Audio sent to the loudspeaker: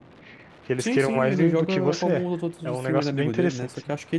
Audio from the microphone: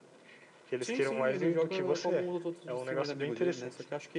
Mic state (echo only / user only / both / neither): echo only